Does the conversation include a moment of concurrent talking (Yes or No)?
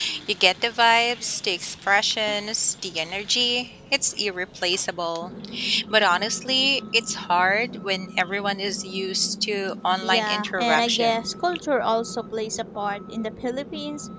Yes